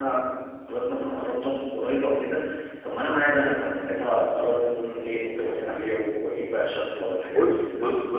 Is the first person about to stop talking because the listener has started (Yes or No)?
Yes